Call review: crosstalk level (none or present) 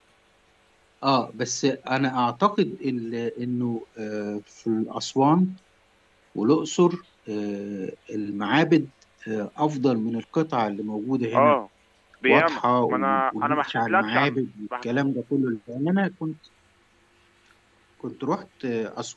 present